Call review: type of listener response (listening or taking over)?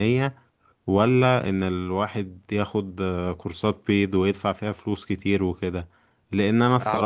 listening